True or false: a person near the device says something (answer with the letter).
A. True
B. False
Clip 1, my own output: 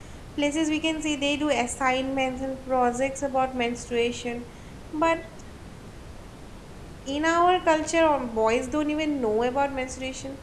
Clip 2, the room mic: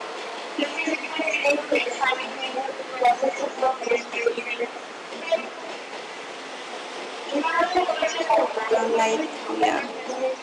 A